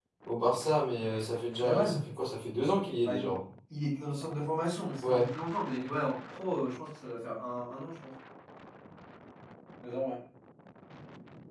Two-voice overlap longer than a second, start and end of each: none

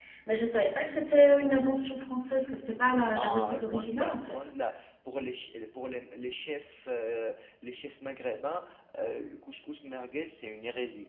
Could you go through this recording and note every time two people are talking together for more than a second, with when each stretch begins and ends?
3.1-4.5

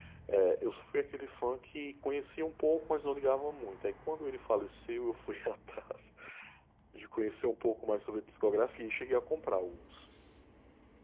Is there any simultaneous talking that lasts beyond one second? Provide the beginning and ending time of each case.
none

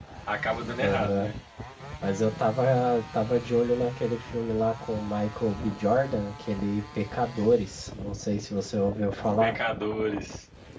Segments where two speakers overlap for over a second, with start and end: none

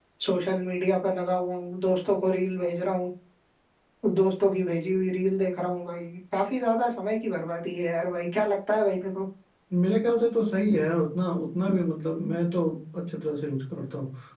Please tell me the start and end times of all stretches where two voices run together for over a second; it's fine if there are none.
none

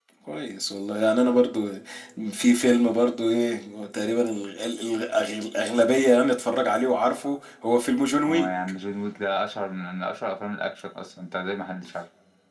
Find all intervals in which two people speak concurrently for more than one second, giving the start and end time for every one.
none

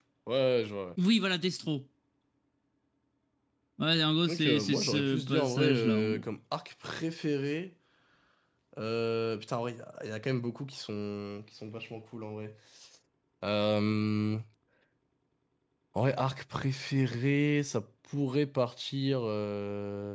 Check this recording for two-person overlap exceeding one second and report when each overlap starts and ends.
4.2-6.3

